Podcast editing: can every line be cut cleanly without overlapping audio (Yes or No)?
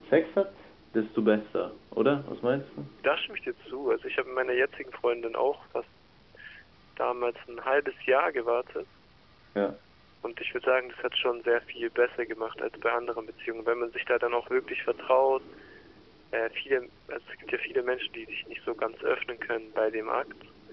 Yes